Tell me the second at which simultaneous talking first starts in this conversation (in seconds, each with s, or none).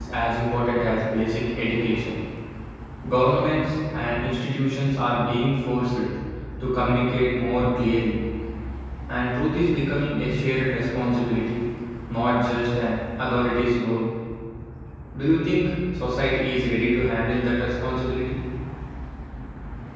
none